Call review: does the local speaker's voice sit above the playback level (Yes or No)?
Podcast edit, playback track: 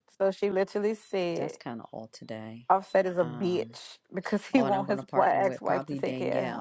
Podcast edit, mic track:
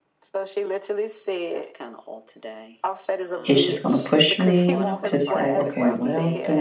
Yes